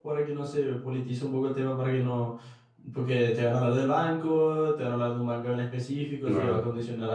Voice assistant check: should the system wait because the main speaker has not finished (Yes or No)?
Yes